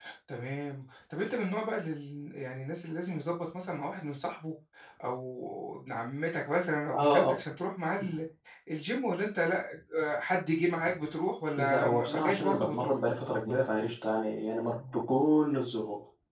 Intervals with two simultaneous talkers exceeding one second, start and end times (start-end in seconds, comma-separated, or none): 11.6-12.9